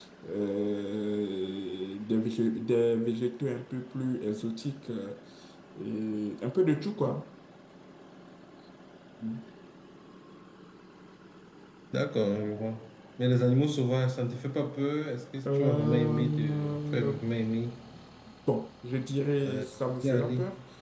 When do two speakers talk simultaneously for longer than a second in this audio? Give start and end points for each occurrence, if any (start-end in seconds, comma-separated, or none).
15.5-17.2